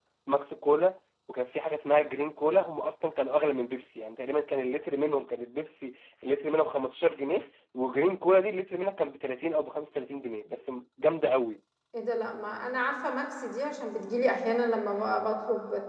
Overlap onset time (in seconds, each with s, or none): none